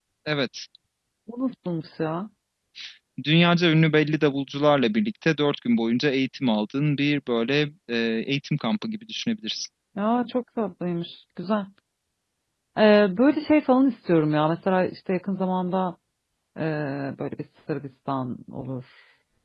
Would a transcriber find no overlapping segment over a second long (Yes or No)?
Yes